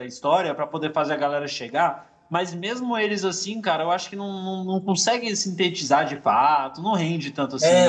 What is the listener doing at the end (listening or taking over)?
taking over